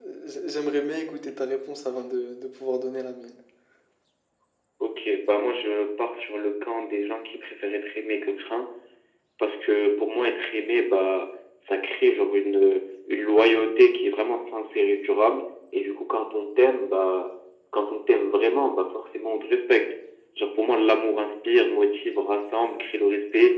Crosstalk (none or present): none